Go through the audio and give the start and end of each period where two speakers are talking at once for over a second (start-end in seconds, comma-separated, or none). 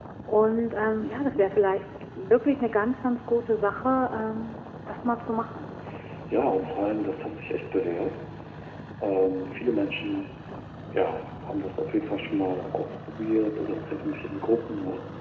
none